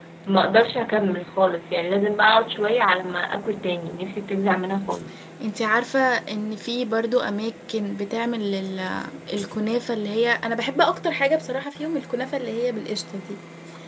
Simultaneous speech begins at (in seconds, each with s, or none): none